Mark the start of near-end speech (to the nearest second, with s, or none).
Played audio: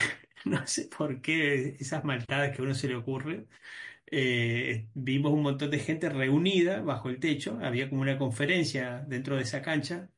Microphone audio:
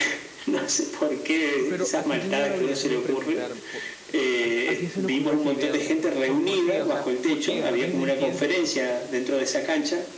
2 s